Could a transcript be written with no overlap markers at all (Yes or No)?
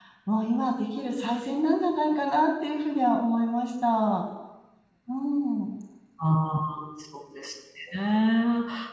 Yes